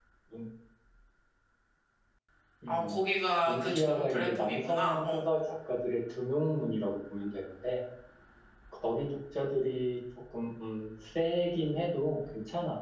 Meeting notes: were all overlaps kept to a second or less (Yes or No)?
No